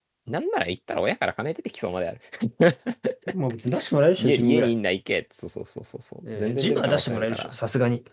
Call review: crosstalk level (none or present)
present